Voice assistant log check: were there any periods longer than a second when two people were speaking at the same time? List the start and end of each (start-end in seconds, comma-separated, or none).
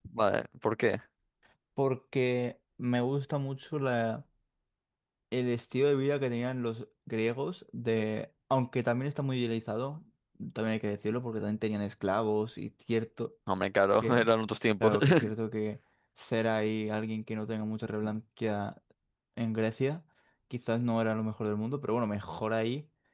none